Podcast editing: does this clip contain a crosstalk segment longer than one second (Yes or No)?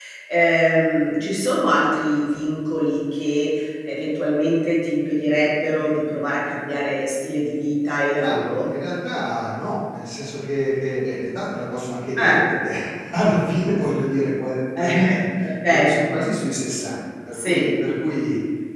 No